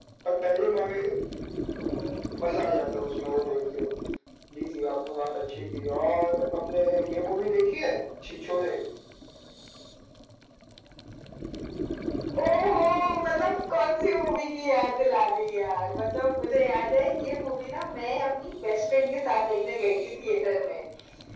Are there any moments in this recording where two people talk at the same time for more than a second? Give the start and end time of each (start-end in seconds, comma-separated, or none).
none